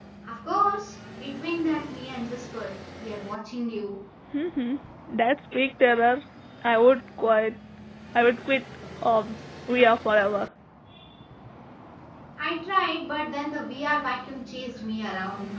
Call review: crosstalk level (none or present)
none